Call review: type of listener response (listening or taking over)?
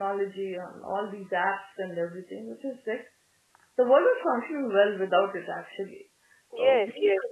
taking over